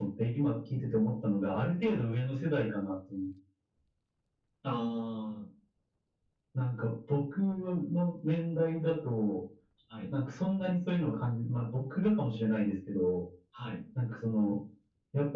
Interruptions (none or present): none